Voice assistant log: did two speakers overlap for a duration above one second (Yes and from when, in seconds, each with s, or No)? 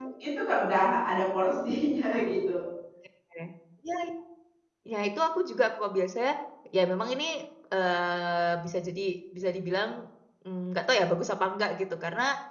No